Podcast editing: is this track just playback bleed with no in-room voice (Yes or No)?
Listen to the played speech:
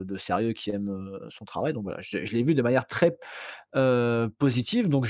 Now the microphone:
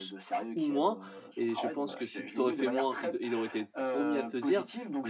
No